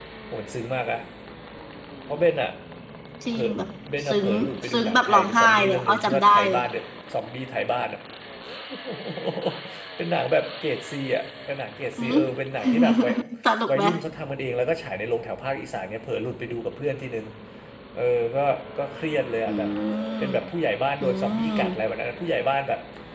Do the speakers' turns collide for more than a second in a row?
Yes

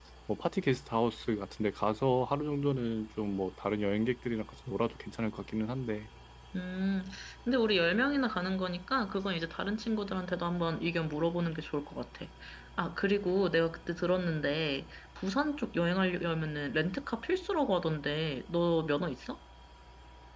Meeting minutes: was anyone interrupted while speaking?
No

